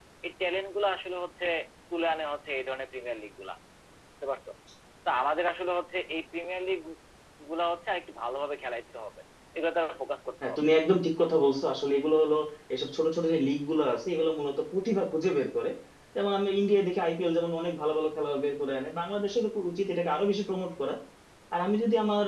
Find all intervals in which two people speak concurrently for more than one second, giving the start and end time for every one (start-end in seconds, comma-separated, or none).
none